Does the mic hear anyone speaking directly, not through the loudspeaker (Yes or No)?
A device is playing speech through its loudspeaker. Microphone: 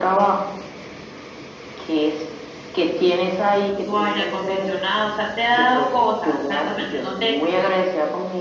No